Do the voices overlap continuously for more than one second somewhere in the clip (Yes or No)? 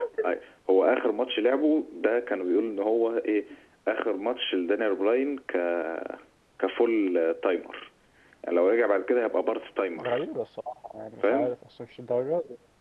No